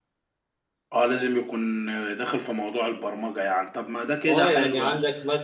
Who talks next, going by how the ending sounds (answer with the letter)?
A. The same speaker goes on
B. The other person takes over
B